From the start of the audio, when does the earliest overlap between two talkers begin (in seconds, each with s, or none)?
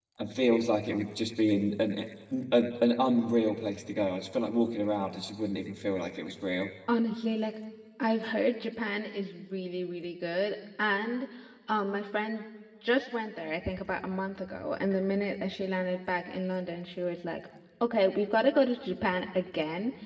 none